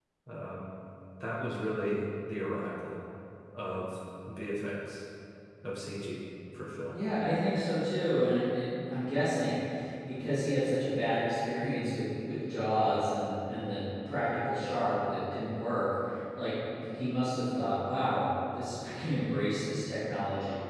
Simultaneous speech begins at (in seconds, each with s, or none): none